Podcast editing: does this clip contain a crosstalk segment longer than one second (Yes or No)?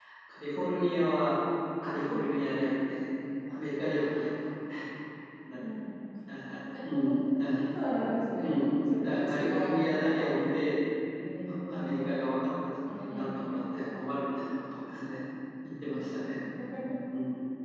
Yes